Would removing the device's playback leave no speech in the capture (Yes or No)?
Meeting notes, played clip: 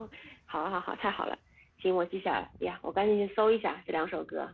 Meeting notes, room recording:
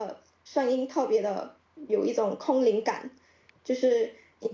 No